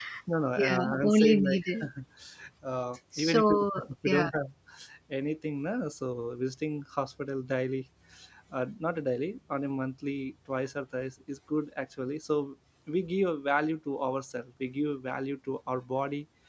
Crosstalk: present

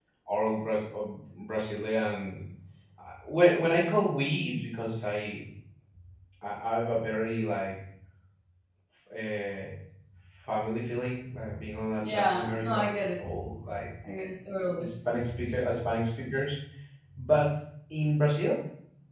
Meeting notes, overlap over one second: present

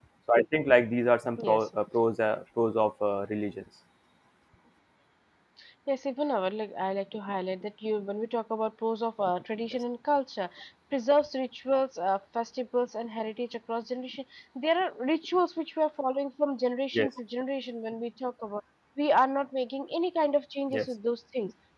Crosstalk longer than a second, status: none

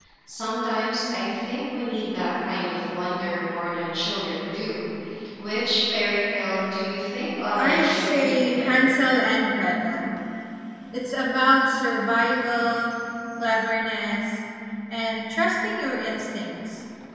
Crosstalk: present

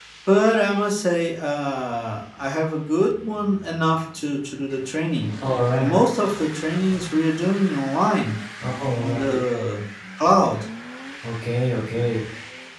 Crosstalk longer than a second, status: none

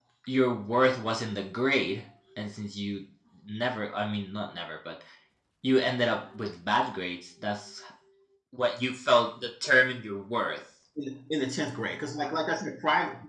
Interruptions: none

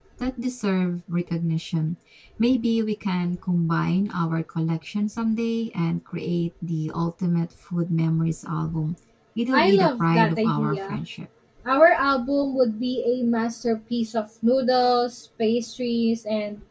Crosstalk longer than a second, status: present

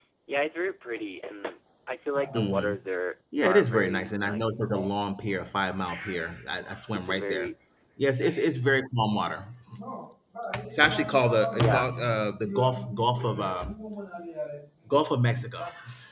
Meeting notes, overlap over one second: present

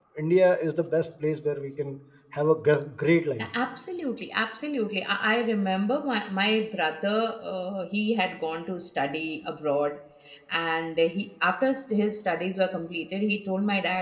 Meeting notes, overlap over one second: none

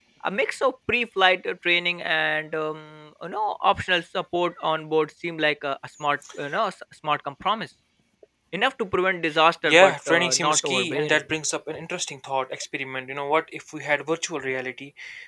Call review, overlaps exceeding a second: present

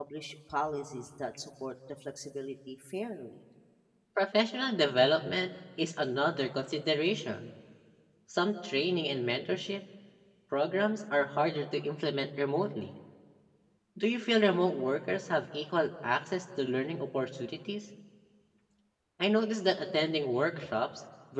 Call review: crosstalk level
none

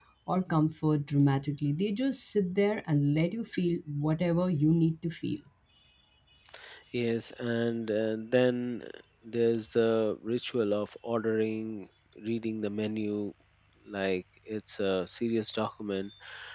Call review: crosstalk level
none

